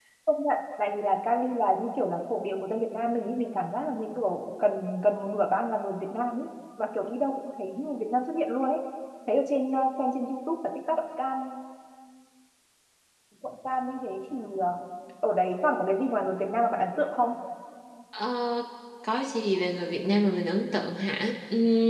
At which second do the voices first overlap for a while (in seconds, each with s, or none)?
none